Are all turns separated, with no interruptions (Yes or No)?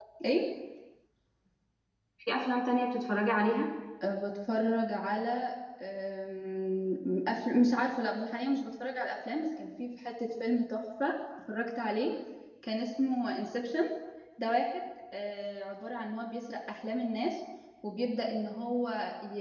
Yes